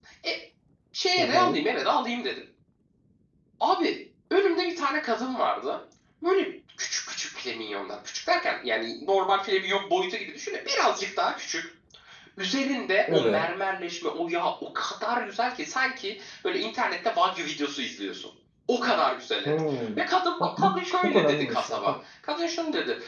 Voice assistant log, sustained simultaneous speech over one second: present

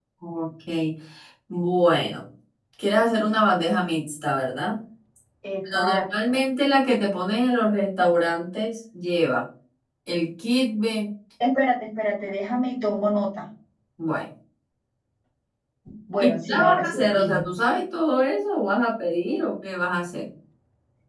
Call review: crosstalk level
present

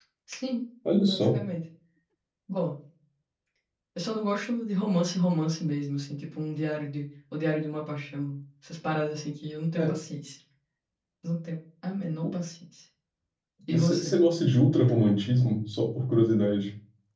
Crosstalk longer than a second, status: none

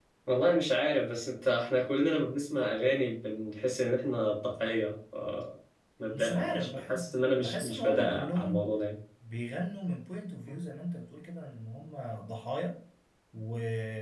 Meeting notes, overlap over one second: present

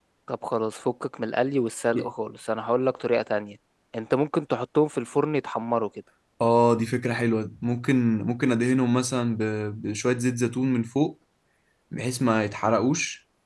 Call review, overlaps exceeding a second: none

